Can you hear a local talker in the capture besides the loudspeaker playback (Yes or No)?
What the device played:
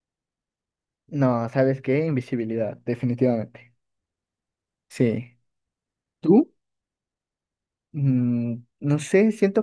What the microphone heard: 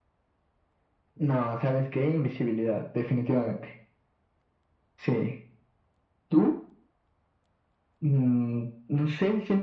No